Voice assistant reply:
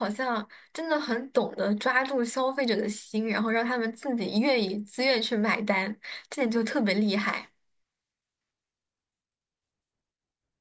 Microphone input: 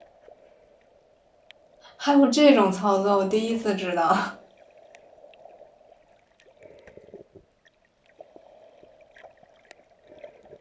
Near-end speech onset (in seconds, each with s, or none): 1.9 s